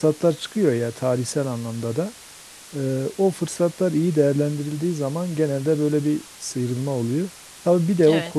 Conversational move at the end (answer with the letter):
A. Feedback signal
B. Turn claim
A